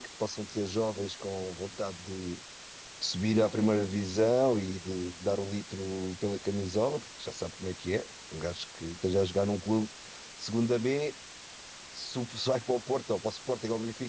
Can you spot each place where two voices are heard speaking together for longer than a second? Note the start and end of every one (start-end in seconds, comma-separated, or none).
none